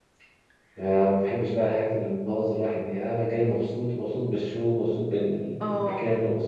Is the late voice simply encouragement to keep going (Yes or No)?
Yes